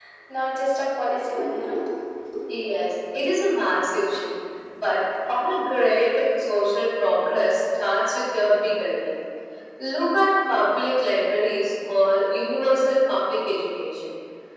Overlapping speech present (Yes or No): No